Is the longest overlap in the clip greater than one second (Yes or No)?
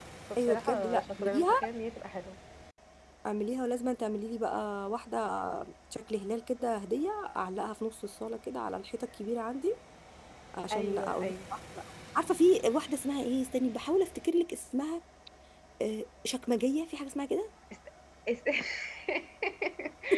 Yes